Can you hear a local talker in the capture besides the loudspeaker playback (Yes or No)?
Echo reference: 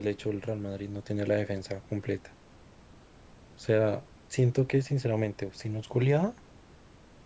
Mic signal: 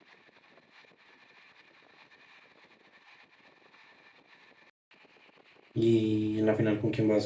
Yes